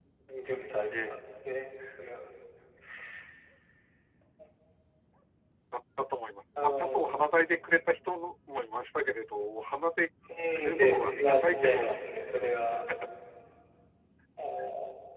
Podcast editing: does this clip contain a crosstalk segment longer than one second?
Yes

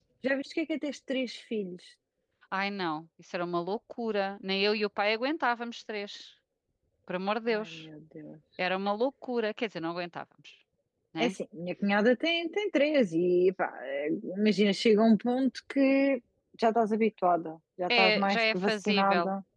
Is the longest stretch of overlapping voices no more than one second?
No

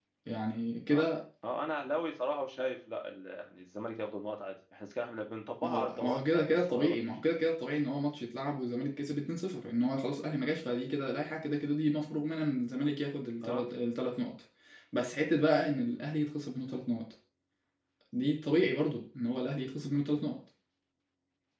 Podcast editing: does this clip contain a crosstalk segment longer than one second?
Yes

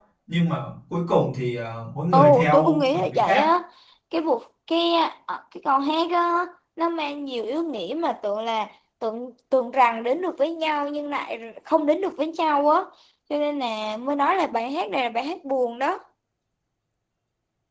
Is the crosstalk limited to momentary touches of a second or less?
No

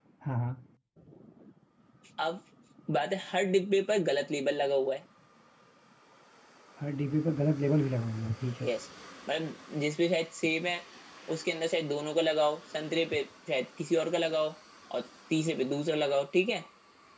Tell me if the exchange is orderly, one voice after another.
Yes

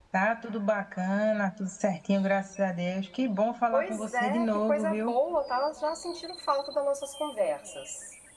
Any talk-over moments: Yes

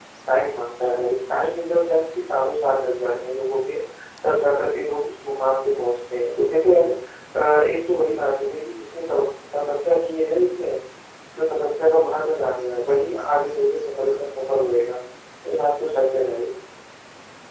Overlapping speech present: No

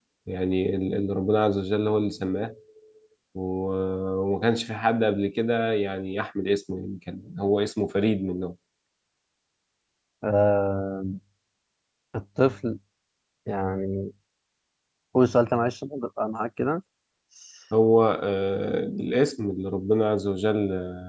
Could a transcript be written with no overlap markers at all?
Yes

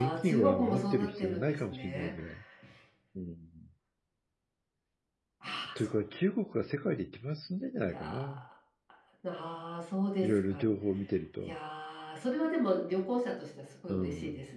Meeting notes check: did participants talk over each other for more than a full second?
Yes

